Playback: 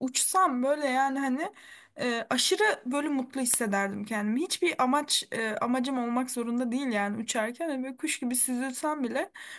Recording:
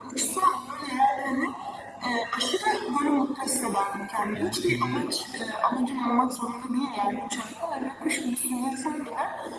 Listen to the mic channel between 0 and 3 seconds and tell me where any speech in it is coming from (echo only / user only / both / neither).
echo only